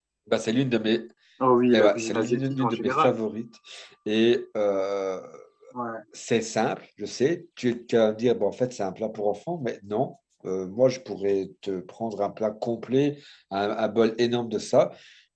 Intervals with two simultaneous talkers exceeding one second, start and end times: 1.7-3.1

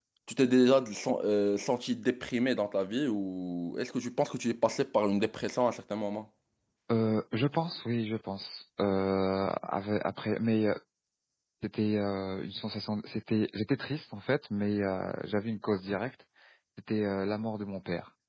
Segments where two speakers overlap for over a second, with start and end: none

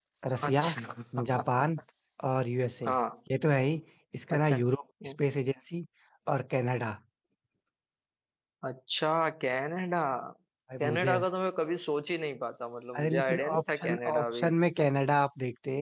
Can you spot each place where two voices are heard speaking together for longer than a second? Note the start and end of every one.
13.0-14.5

